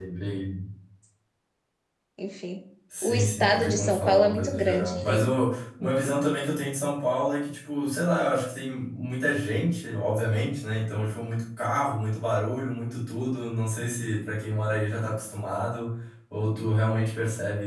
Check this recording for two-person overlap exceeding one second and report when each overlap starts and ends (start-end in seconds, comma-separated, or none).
3.0-5.3